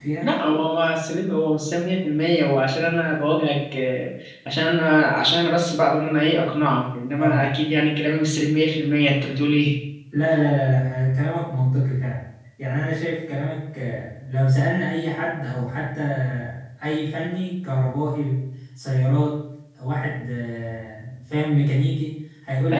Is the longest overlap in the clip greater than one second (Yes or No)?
No